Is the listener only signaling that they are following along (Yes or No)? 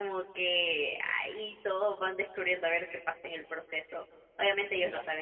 Yes